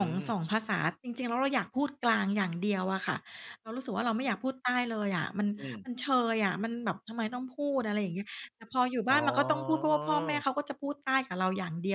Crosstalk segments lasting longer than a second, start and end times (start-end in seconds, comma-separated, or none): 9.1-10.4